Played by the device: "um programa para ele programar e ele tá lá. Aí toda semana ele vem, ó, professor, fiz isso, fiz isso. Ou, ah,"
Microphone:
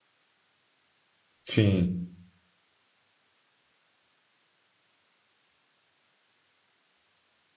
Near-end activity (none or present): present